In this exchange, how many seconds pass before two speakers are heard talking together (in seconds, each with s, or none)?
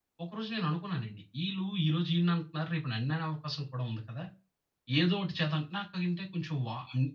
none